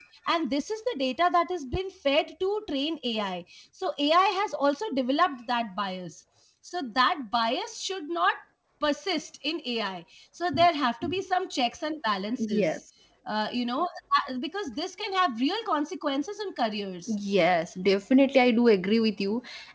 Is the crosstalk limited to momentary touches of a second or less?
Yes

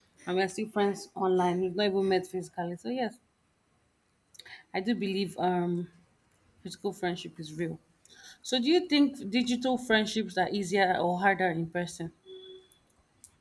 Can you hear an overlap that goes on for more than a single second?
No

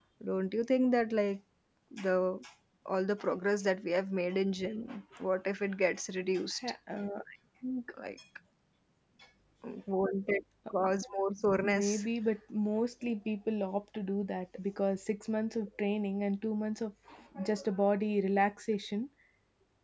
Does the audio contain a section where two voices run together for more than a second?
No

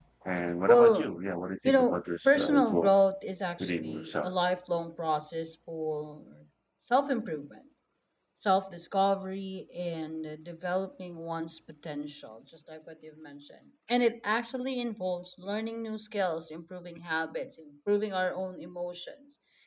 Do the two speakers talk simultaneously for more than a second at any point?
Yes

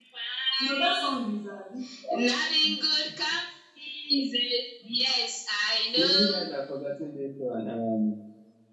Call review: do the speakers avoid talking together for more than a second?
Yes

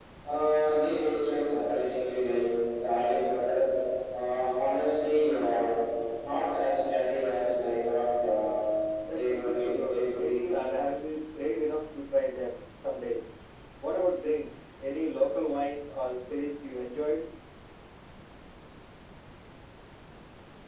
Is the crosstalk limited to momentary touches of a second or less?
No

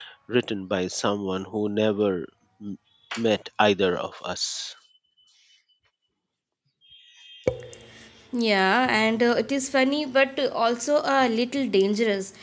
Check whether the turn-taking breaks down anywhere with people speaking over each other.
No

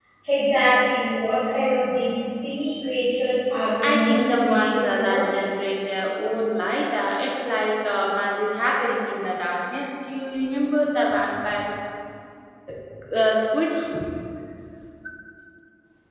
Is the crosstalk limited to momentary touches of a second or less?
No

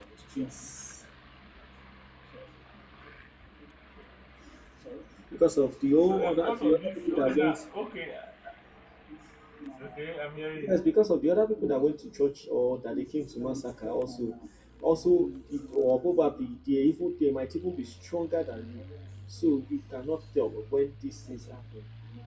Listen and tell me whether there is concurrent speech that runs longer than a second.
Yes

